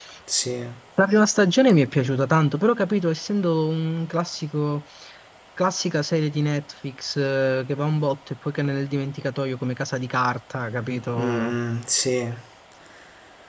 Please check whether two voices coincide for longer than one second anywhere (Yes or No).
No